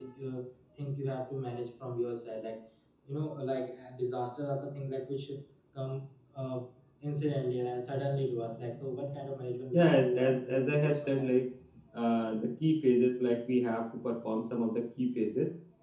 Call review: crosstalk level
present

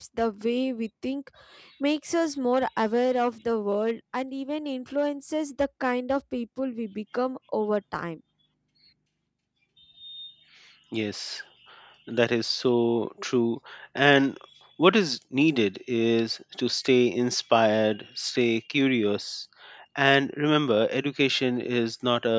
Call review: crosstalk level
none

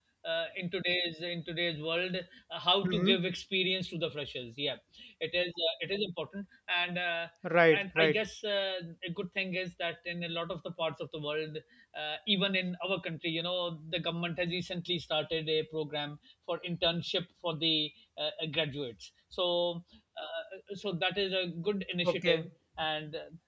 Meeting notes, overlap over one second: none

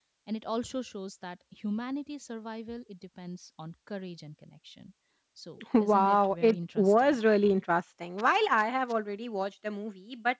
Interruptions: present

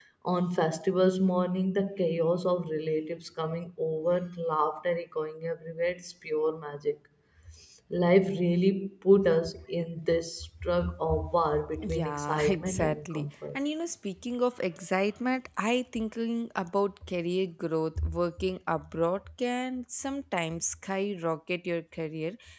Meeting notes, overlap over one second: present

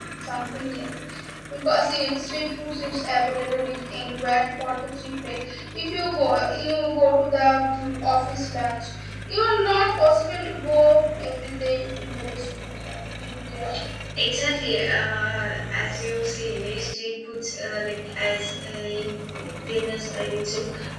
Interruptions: none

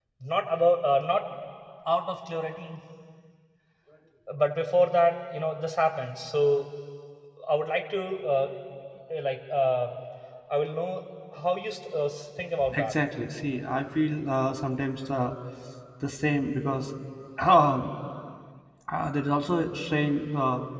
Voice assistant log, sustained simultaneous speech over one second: none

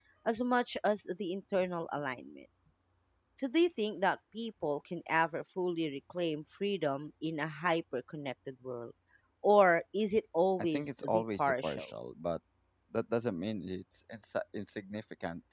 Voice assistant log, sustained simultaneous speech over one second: present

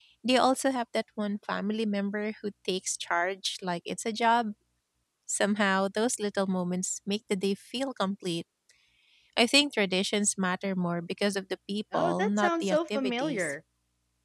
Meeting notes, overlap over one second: present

